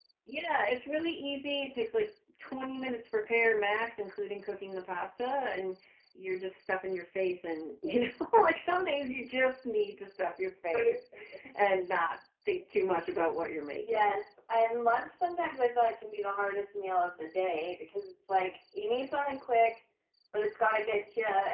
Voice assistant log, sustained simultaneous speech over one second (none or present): none